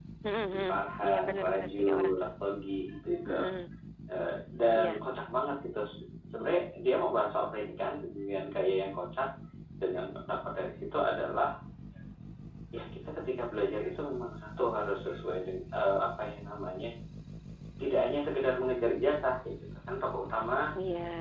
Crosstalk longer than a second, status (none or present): present